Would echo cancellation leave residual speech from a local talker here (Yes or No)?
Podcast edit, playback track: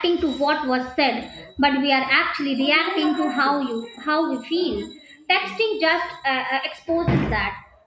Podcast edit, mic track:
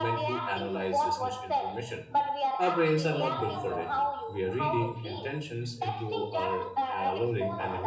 Yes